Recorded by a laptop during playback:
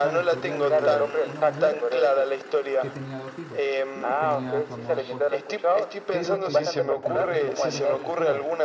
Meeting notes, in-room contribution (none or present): present